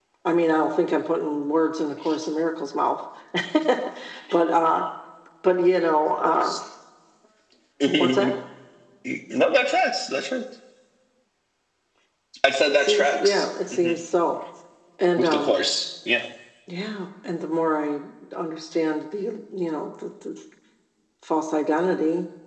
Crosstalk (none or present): present